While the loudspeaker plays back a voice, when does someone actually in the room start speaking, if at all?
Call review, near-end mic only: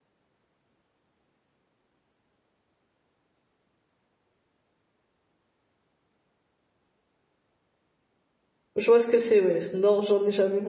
8.8 s

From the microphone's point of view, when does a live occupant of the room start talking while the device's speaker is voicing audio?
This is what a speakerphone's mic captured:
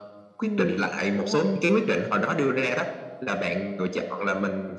0.4 s

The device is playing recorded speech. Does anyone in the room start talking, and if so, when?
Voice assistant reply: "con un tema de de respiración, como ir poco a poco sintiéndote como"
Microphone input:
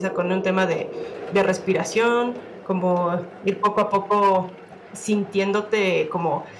none

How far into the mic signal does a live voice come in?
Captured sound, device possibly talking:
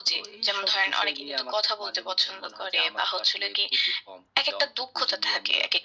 none

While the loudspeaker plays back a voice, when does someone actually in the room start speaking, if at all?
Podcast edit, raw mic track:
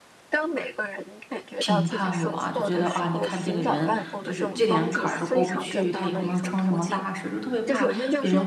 1.6 s

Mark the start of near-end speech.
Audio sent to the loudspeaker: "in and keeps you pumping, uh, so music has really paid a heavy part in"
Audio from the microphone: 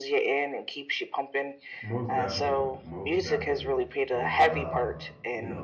1.8 s

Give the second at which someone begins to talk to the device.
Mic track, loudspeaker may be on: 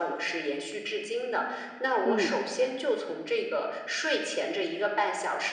2.0 s

